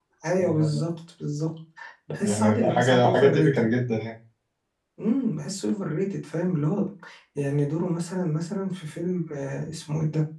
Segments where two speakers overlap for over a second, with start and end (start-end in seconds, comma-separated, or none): 2.2-3.7